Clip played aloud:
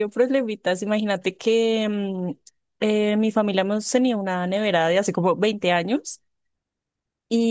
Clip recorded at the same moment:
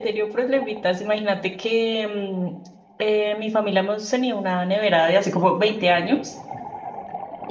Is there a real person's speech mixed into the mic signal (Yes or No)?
No